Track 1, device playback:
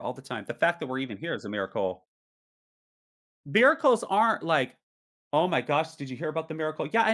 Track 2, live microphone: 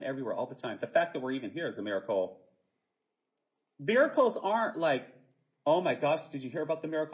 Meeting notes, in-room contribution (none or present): none